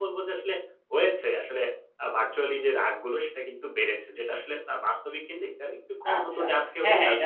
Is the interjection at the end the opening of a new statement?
Yes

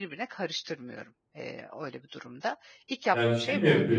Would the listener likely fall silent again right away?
No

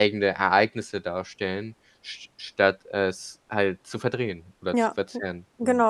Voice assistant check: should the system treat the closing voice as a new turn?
Yes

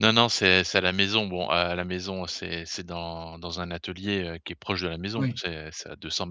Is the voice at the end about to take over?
No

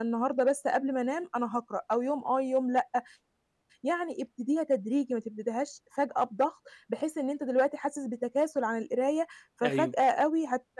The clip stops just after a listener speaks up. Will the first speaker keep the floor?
Yes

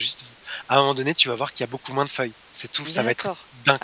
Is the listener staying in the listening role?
No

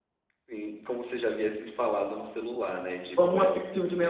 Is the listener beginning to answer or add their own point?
Yes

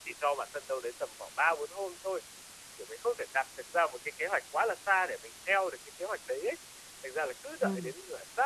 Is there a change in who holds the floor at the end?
No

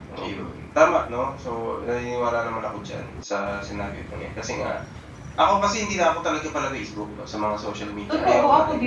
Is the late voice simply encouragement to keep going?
No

